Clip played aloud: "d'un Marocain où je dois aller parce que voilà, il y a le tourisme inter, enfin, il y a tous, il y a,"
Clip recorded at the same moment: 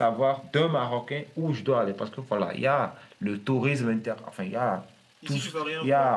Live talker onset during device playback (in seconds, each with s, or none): 5.2 s